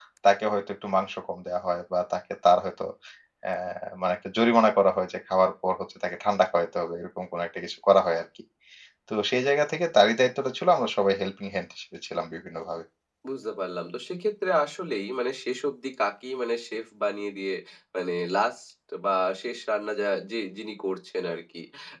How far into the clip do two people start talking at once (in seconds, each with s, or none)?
none